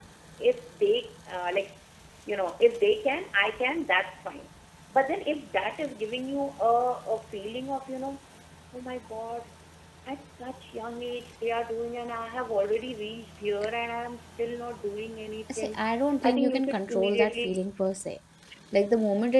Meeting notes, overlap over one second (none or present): present